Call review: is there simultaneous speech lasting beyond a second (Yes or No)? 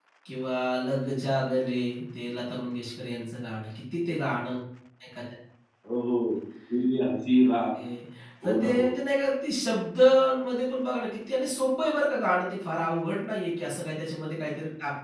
No